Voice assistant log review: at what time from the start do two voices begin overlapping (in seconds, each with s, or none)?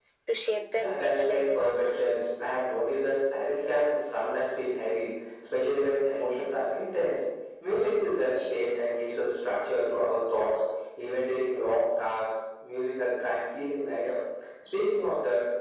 0.7 s